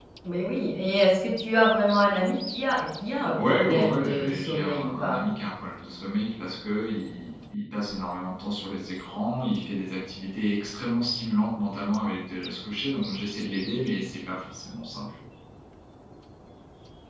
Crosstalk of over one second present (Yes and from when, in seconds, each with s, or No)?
Yes, from 3.4 s